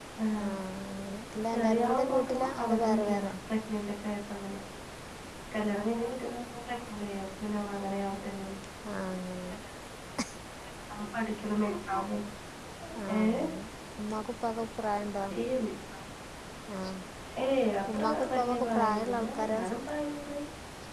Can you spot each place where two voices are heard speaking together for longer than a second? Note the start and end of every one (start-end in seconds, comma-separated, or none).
1.5-3.3, 17.9-19.8